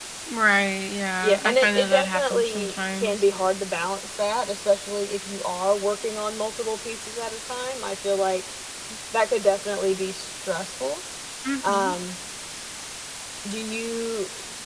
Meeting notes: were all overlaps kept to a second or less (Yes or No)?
No